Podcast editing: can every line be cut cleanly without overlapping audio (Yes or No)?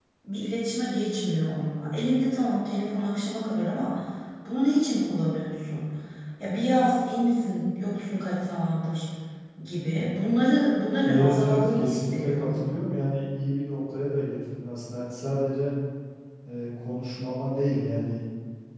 No